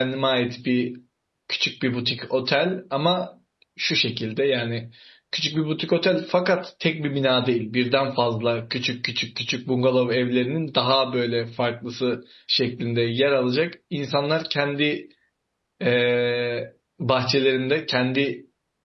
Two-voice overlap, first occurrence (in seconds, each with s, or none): none